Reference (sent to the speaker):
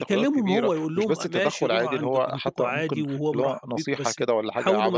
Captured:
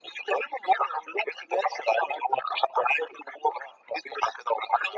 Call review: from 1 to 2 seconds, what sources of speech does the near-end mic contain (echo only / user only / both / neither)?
echo only